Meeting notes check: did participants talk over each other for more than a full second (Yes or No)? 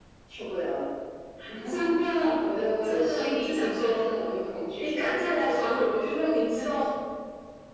Yes